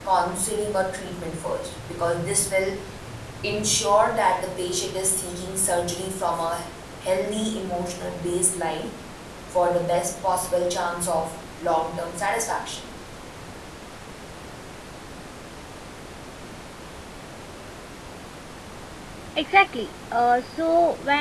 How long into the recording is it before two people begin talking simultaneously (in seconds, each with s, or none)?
none